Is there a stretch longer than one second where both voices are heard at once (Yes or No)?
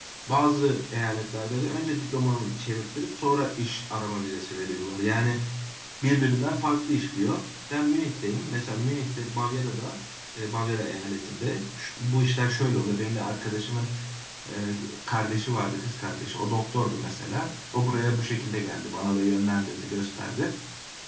No